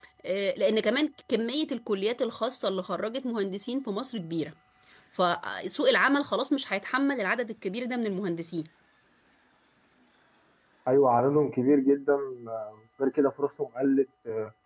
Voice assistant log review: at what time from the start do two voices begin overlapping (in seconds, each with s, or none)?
none